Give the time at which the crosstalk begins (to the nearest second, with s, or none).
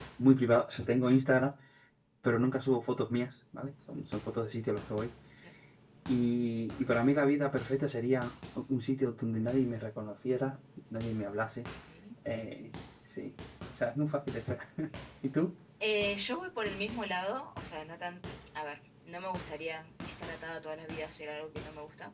none